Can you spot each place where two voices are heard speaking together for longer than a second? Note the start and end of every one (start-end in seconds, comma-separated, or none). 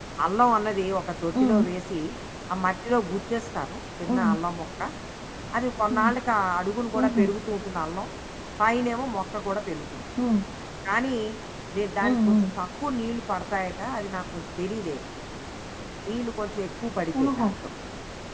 none